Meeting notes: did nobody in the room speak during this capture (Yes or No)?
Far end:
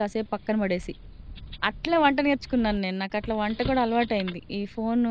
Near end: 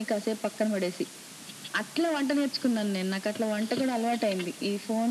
Yes